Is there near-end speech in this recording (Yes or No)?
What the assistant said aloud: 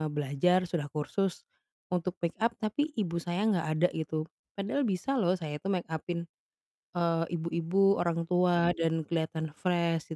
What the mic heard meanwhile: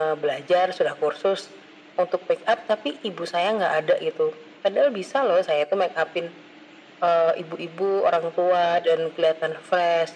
No